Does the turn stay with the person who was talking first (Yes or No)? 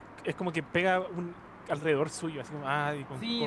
No